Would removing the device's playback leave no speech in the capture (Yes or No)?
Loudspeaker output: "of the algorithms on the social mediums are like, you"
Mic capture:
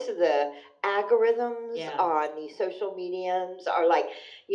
No